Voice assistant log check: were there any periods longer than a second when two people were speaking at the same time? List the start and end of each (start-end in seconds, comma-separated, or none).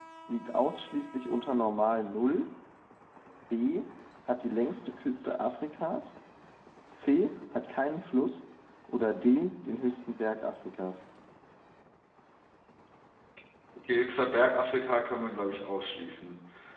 none